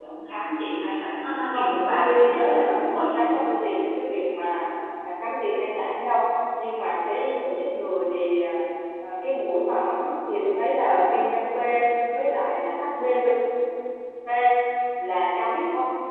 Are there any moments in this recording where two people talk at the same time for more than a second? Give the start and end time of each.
1.5-3.2

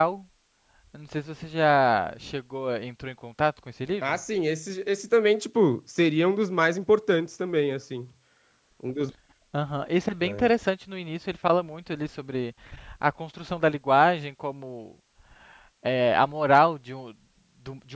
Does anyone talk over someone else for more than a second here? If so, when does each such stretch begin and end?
none

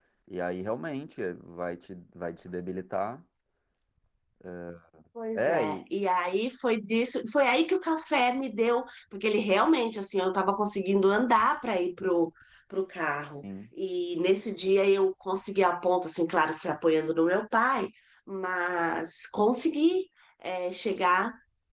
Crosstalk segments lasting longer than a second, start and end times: none

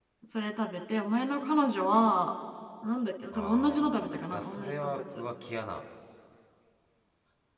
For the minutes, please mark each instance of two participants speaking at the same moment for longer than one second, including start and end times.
3.3-5.0

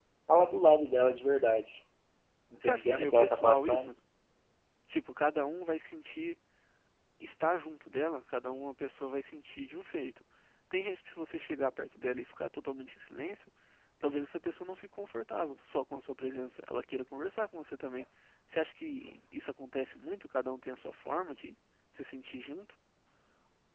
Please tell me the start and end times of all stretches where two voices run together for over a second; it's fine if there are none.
2.6-3.9

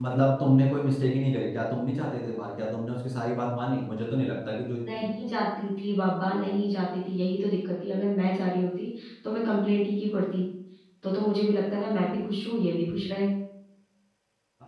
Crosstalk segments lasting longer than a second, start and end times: none

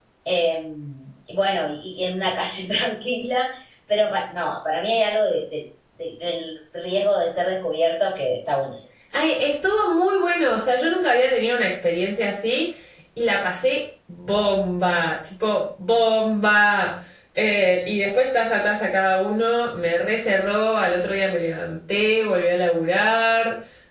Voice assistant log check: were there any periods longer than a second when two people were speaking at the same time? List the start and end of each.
none

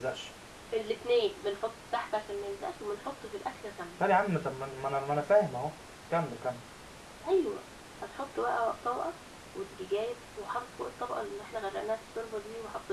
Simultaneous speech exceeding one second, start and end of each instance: none

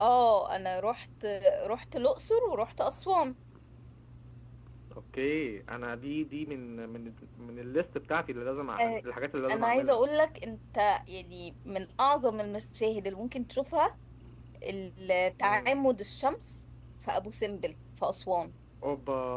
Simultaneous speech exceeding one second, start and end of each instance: none

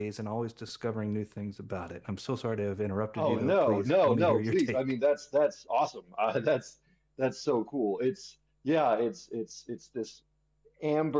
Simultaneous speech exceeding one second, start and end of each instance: 3.2-4.8

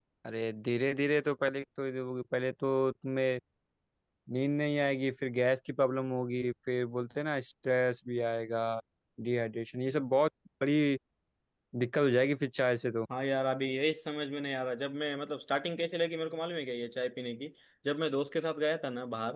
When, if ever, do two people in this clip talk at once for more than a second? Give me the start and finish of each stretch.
none

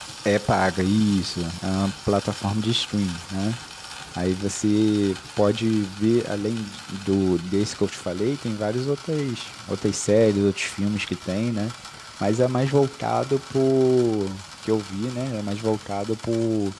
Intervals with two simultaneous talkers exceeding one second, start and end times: none

